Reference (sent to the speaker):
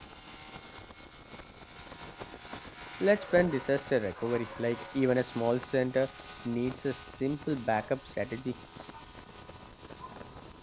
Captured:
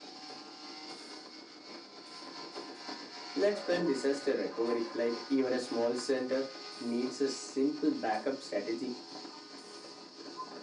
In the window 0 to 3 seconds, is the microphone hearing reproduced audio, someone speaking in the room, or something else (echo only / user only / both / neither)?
neither